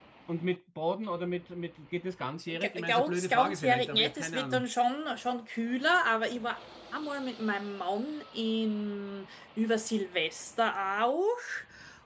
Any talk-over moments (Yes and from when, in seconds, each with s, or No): Yes, from 2.5 s